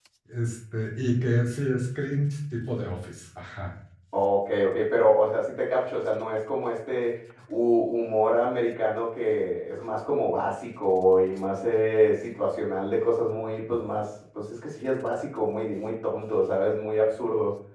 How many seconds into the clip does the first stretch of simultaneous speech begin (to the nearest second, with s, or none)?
none